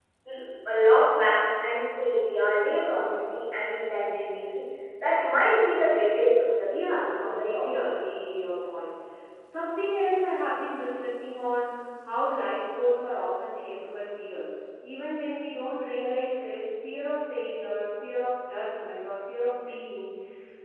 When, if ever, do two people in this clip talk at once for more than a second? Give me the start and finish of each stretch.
6.7-7.9

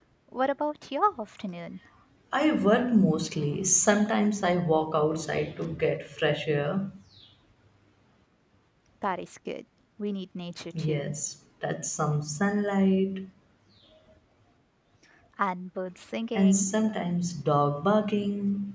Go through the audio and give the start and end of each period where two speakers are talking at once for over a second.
none

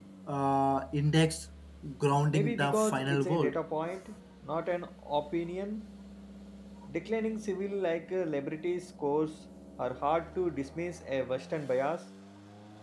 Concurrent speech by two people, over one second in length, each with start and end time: 2.3-3.6

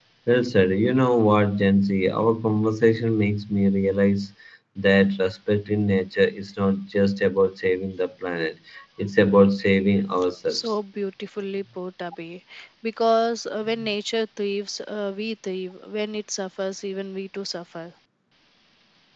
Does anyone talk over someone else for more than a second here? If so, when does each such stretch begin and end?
none

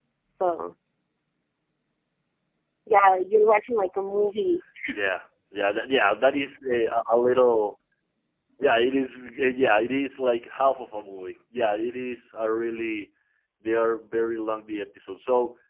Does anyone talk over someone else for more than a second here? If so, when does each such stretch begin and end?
none

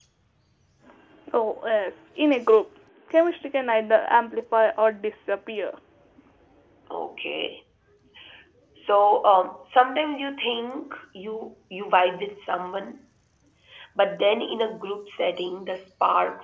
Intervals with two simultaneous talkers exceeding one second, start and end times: none

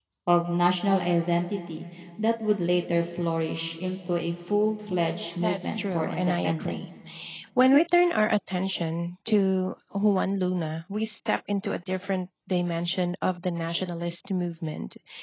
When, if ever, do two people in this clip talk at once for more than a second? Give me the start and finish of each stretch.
5.4-6.9

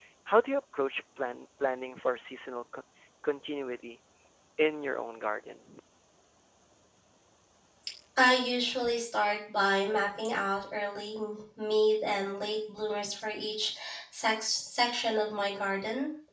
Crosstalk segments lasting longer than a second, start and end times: none

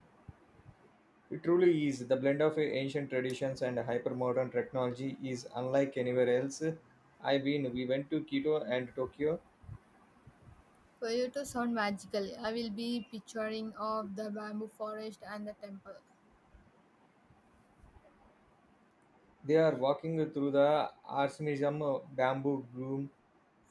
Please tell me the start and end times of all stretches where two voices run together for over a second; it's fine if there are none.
none

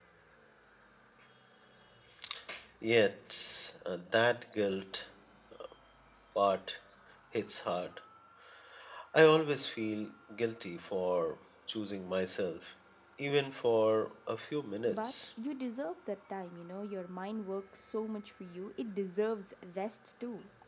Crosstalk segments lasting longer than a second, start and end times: none

